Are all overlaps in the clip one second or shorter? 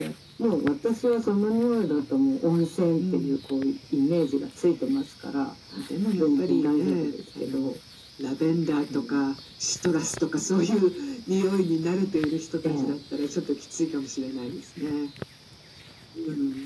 No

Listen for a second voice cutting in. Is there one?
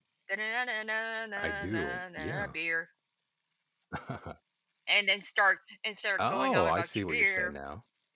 Yes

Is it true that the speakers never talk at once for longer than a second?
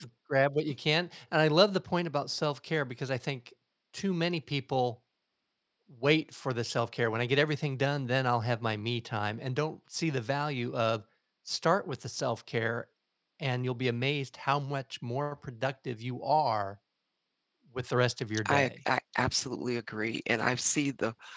Yes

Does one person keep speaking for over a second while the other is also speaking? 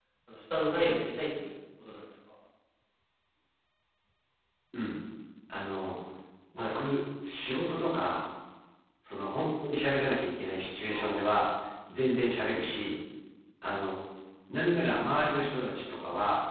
No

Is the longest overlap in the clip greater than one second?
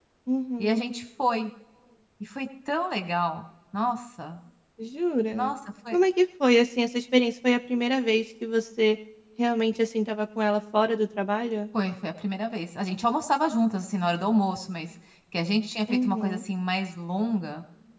No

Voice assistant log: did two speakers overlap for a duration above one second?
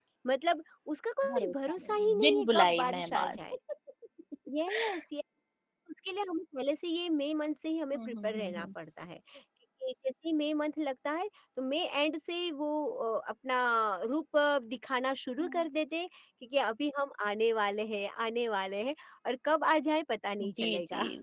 Yes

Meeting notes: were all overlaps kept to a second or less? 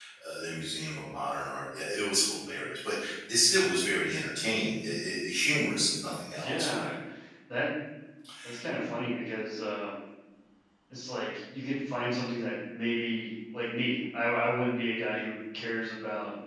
Yes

